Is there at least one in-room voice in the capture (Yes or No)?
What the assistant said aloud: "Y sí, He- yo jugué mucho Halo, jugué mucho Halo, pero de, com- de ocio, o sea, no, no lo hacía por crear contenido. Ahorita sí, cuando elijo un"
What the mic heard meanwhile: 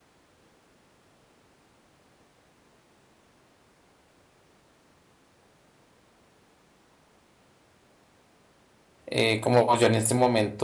Yes